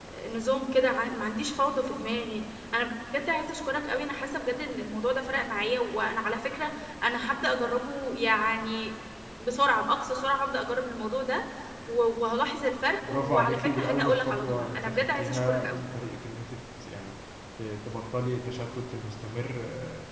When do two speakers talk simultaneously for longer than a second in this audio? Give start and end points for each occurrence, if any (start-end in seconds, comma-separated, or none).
13.1-15.7